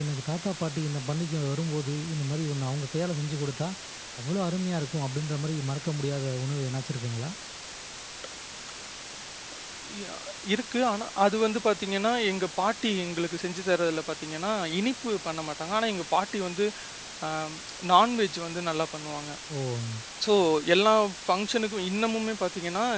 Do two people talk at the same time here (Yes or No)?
No